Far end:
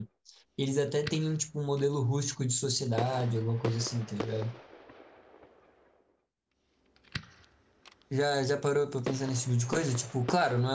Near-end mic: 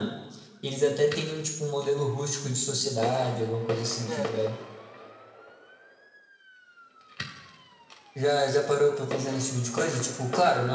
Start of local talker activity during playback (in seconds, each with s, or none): 4.1 s